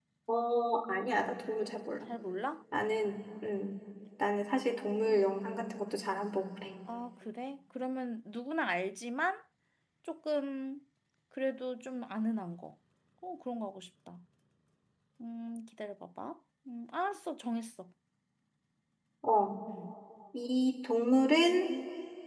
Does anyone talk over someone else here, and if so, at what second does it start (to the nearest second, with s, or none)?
none